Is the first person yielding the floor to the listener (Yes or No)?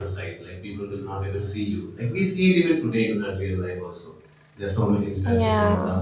No